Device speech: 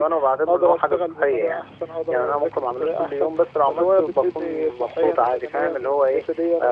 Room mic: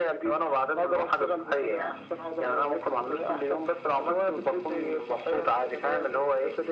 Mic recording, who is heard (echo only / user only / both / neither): echo only